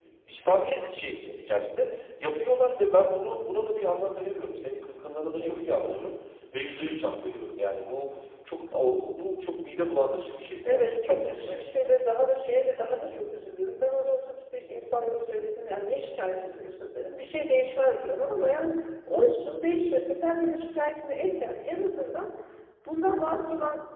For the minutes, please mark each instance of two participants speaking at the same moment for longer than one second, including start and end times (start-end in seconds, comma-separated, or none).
10.7-11.9